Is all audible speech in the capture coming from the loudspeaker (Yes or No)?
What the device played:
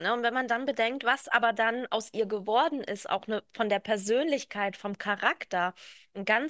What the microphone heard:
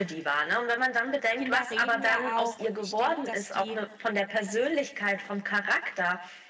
No